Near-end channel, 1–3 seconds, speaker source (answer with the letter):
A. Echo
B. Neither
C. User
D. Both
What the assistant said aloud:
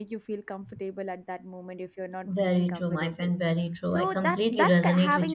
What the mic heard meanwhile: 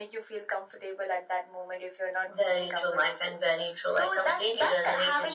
A